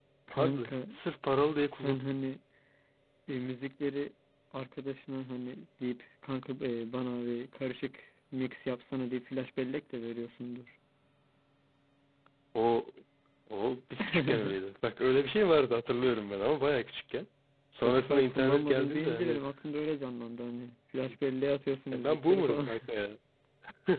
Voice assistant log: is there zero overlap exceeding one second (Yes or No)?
No